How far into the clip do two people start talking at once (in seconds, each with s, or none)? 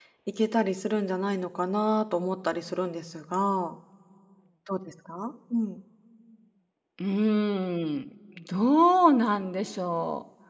none